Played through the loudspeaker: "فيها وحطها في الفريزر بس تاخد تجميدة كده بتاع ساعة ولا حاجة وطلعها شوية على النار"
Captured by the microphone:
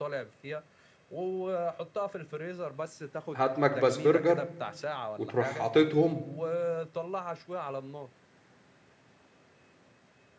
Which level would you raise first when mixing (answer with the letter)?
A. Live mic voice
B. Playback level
B